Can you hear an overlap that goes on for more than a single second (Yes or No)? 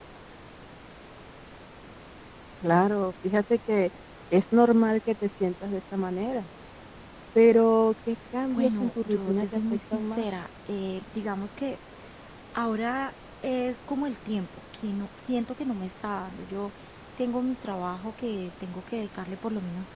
Yes